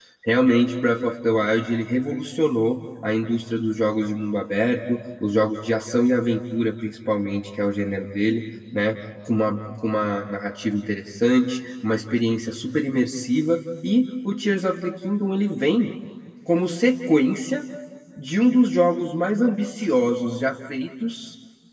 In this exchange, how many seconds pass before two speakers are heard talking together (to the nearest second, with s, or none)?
none